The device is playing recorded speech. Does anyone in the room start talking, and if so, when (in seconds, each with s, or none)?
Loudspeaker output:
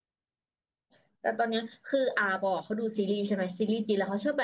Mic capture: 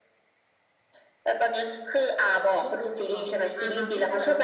2.2 s